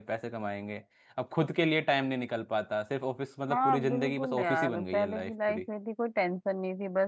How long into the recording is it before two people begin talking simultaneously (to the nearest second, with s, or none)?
4 s